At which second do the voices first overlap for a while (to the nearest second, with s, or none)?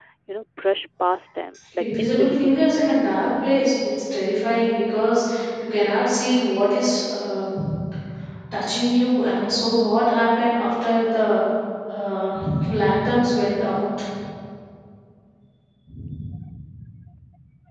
2 s